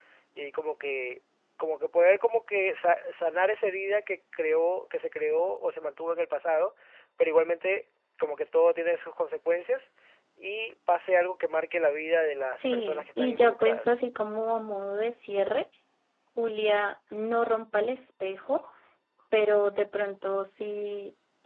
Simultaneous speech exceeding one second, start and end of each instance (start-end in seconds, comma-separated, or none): 12.6-13.9